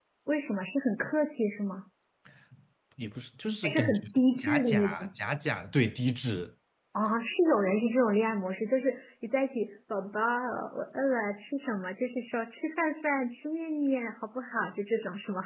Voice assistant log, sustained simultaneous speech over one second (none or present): present